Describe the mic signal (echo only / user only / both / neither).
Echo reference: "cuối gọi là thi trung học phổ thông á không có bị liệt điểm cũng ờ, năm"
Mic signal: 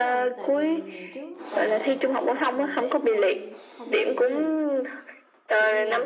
both